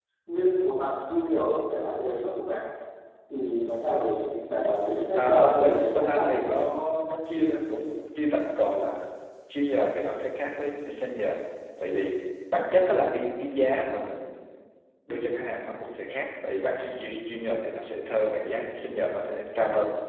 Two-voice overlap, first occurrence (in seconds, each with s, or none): 5.1 s